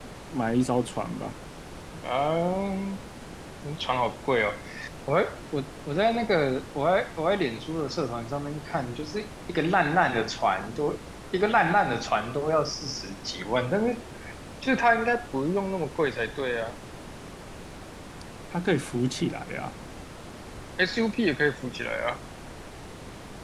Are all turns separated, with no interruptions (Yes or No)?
Yes